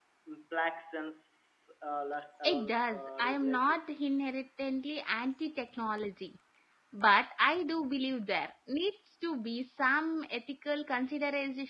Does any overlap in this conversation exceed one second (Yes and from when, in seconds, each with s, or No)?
Yes, from 2.5 s